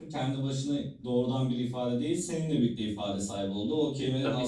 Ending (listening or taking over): listening